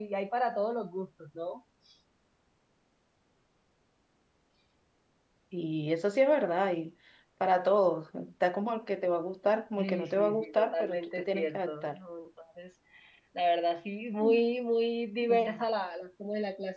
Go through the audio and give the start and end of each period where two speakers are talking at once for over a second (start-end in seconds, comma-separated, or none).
9.8-11.9